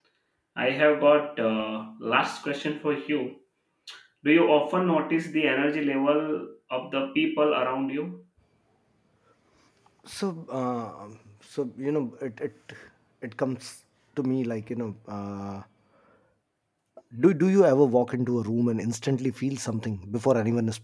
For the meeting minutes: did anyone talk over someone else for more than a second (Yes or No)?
No